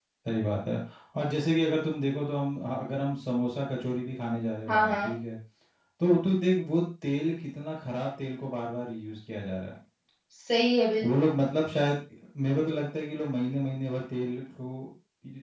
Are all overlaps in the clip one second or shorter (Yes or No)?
Yes